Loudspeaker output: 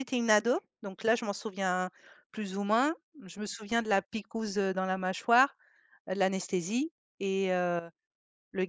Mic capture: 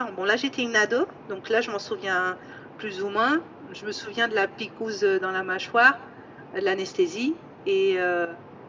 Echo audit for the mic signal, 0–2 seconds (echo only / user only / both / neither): echo only